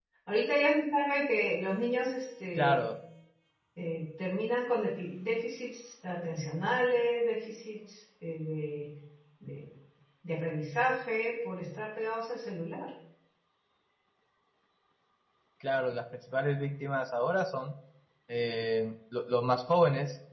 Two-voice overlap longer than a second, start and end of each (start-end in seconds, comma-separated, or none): none